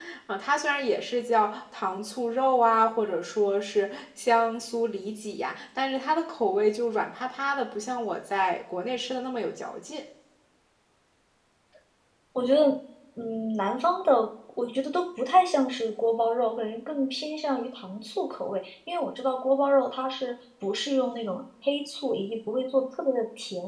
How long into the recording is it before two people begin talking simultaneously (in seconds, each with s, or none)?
none